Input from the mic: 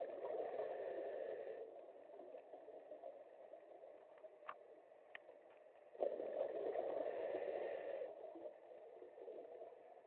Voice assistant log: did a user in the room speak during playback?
No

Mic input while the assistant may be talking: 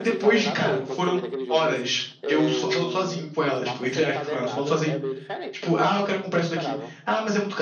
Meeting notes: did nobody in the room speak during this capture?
No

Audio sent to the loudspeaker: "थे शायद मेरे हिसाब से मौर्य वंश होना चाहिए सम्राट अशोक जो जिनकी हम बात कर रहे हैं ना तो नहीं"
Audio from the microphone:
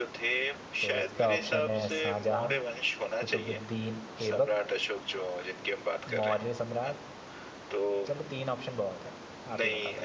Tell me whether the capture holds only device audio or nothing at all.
No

